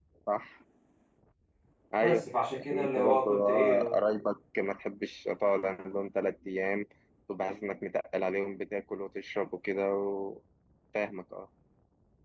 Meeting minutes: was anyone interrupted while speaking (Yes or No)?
Yes